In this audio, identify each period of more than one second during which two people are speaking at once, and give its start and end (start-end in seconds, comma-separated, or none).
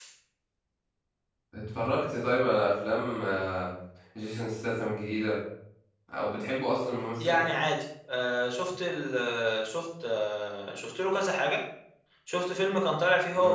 none